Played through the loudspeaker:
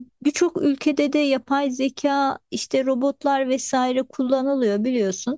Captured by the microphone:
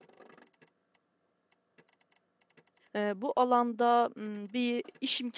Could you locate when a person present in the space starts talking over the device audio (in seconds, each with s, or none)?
2.9 s